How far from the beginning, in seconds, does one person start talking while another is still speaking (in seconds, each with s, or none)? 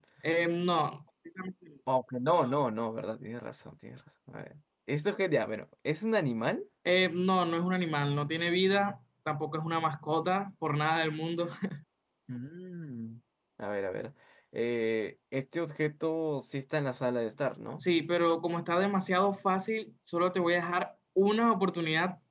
none